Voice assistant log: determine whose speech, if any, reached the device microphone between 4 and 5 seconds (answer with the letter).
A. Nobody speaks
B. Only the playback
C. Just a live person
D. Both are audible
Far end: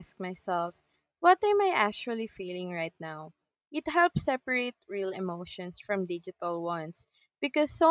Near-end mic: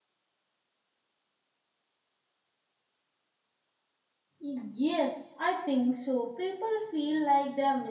C